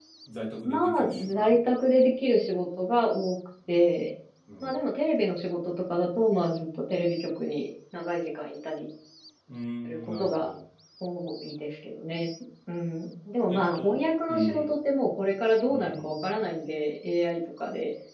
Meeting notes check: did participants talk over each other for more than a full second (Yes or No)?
Yes